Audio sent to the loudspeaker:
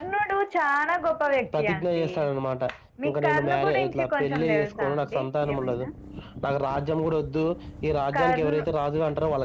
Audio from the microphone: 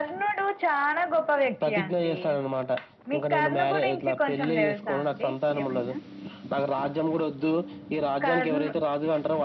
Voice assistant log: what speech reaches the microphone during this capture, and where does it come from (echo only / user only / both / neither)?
echo only